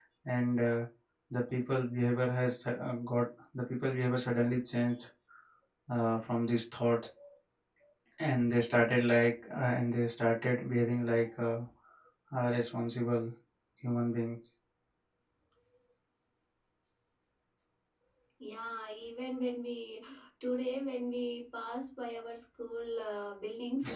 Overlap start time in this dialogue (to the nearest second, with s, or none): none